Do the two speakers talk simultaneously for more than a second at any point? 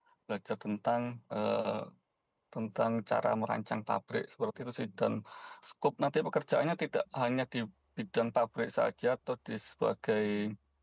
No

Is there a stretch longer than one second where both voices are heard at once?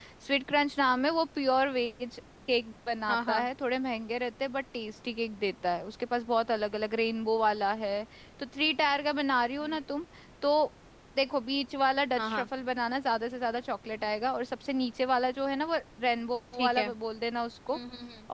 No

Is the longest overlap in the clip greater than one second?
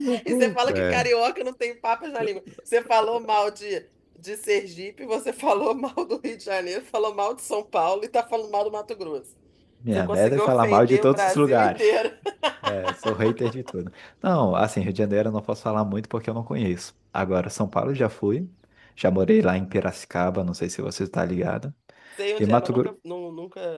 Yes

